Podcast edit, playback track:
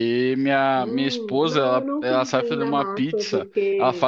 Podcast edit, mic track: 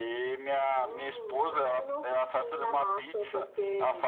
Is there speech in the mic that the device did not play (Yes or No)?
No